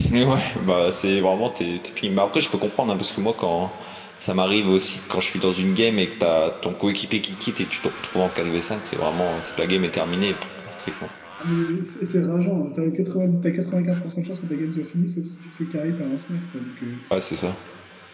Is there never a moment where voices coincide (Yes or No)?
Yes